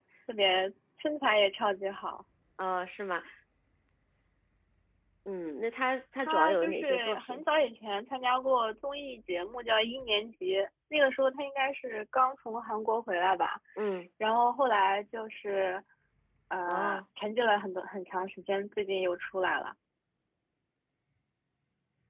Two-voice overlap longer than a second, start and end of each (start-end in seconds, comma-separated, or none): 6.2-7.4